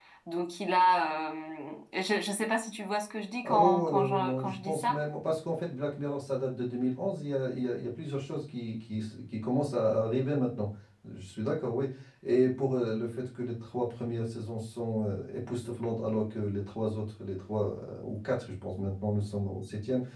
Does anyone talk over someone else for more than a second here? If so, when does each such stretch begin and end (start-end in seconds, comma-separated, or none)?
3.5-5.0